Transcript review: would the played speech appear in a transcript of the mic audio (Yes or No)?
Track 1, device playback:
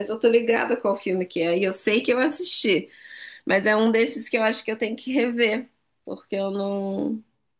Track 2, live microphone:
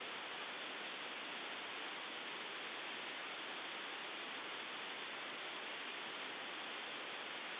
No